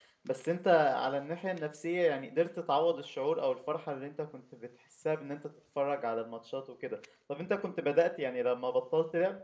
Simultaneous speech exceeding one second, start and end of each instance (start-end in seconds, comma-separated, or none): none